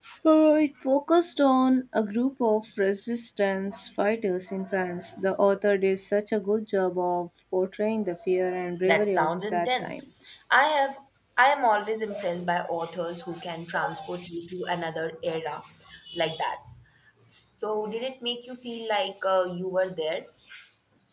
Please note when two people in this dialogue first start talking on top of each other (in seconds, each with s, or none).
8.8 s